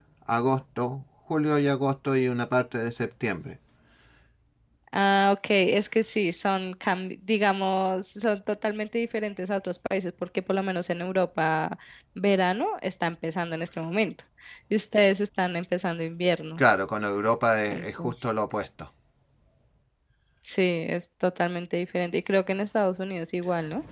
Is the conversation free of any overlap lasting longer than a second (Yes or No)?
Yes